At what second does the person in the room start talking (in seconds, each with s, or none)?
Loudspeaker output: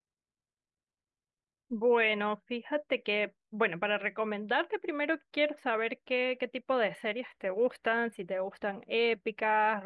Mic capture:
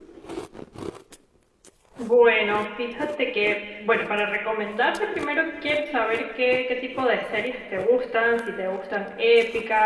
none